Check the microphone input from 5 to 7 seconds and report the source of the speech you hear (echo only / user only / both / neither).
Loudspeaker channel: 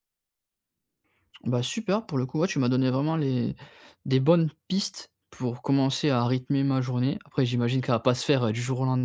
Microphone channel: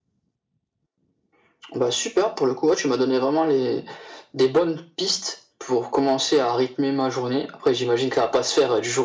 echo only